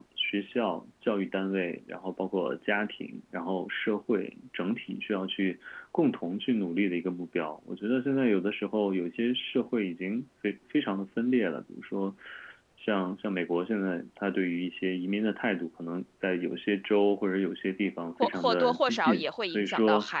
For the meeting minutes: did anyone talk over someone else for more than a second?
Yes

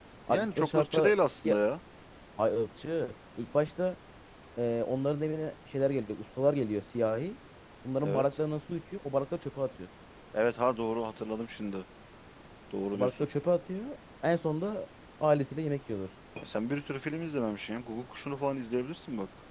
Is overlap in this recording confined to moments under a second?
No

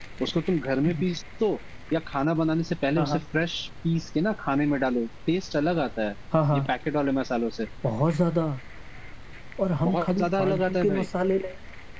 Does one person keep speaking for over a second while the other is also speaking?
Yes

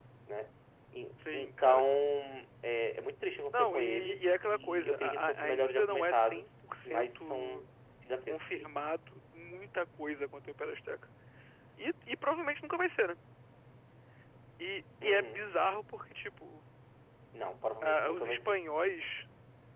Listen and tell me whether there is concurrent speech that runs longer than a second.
Yes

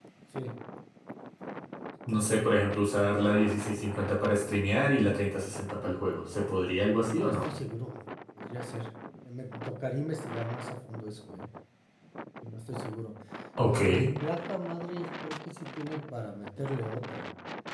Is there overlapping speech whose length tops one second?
No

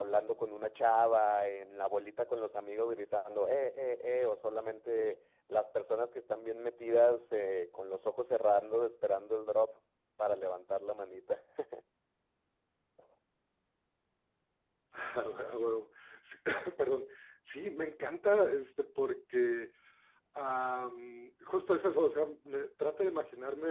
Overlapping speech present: No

